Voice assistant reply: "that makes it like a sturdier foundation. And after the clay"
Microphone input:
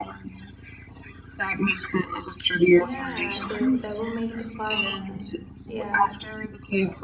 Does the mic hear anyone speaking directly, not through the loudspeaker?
Yes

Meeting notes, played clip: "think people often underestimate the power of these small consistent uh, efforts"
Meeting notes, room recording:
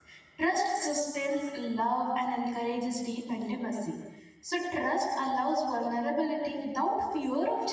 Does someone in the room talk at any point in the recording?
Yes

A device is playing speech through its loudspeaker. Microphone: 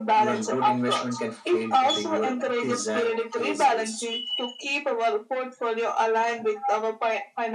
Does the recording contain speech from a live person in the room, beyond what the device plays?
No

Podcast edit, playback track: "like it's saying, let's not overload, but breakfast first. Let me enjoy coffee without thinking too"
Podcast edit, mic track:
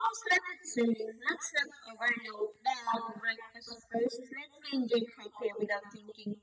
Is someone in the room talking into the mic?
No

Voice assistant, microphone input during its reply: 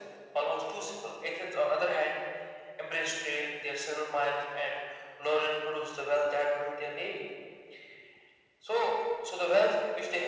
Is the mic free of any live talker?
Yes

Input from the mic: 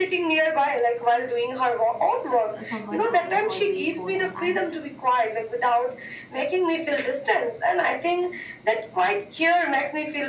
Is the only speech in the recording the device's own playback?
No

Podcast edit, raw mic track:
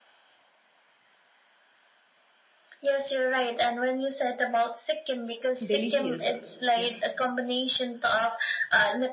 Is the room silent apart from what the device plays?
No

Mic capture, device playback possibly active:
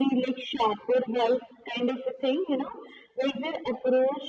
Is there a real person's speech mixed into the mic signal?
No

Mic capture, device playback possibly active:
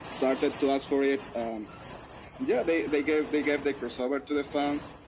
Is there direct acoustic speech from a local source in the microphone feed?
No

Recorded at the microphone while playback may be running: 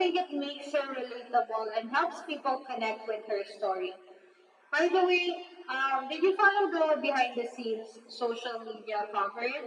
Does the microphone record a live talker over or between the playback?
No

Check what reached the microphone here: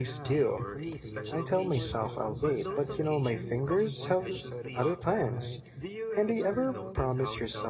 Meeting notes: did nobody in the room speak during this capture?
No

